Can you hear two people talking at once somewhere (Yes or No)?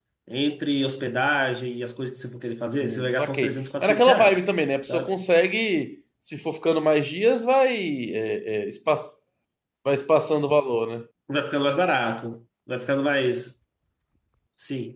Yes